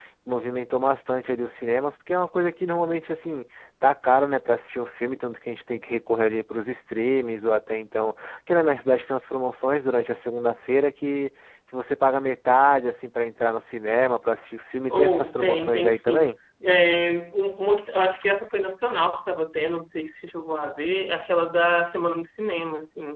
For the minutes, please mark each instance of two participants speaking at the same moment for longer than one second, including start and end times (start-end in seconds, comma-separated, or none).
14.9-16.3